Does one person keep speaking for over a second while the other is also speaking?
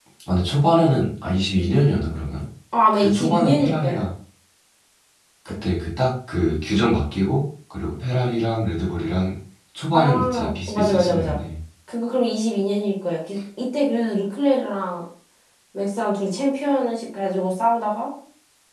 Yes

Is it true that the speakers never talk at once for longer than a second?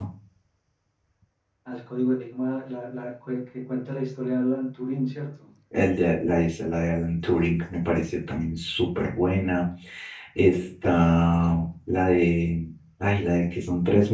Yes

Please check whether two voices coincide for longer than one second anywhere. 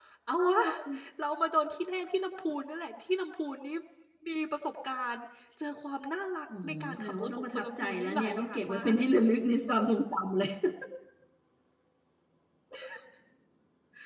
Yes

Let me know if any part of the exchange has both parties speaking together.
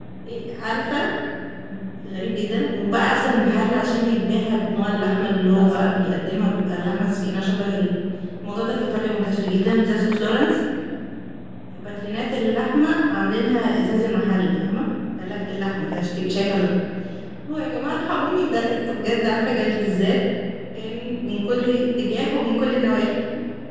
Yes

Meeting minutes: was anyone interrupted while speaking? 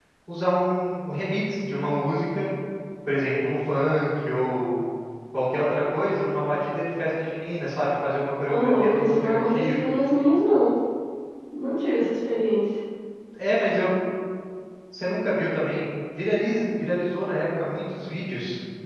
Yes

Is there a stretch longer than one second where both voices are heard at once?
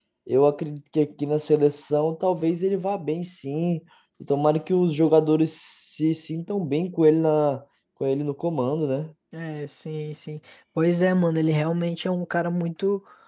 No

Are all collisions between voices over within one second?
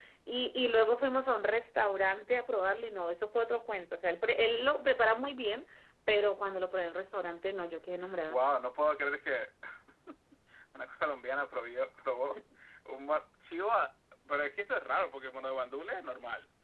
Yes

